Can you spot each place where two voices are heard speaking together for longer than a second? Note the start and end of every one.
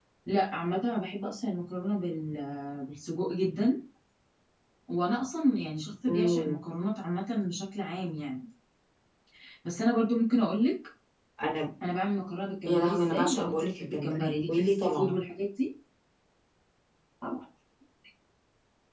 12.7-15.2

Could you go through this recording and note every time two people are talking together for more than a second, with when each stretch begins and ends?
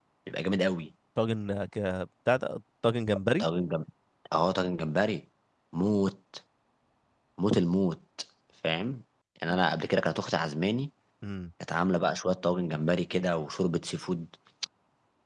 none

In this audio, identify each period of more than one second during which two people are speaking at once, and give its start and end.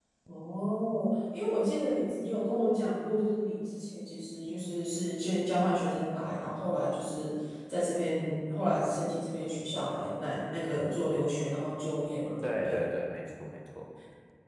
none

